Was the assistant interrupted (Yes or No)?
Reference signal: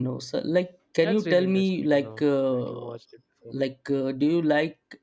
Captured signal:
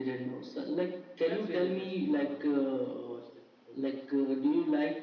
No